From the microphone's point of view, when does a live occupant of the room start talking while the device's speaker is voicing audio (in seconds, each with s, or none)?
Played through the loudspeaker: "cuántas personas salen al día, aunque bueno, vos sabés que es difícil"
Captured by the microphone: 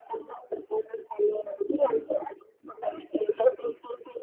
none